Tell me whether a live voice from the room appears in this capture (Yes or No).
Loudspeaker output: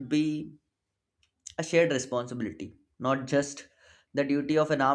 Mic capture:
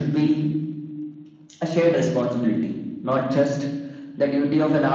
No